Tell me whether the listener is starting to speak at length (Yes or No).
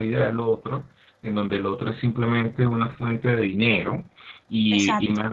No